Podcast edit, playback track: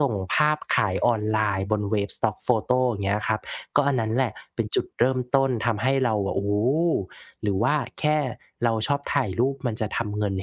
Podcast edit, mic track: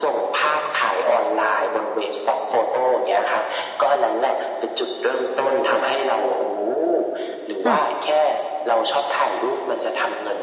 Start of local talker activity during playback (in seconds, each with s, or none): 7.6 s